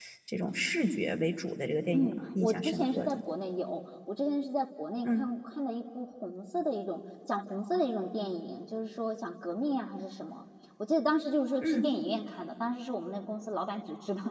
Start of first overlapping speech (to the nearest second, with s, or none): 2 s